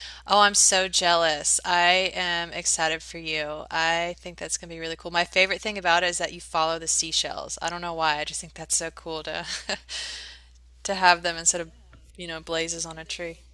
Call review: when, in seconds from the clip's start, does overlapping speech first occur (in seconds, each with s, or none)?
none